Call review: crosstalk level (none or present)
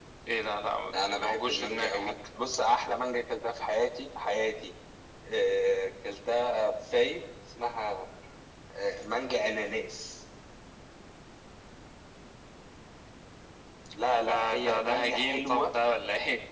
present